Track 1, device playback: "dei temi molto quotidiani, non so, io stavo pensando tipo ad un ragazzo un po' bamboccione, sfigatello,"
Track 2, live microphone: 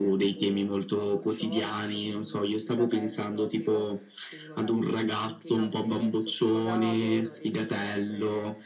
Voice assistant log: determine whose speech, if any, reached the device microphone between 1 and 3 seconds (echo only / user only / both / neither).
both